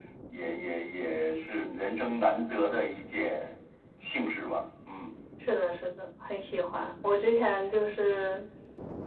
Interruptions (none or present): none